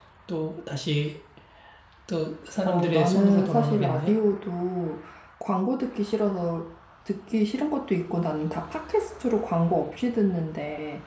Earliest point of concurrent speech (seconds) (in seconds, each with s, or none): 2.6 s